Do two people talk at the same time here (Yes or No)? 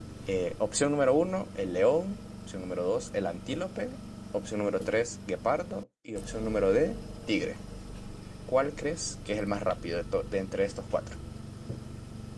No